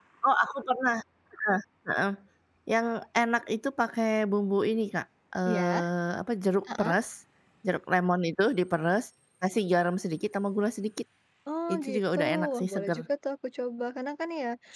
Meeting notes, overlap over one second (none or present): present